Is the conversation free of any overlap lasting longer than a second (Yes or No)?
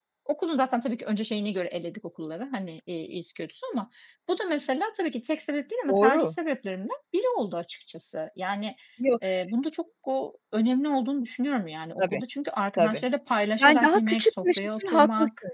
No